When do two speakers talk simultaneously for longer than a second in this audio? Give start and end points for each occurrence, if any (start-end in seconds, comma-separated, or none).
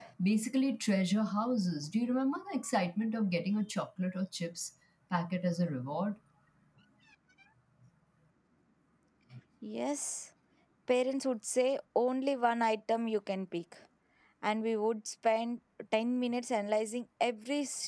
none